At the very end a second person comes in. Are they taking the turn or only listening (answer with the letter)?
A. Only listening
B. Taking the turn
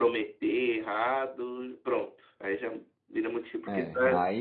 B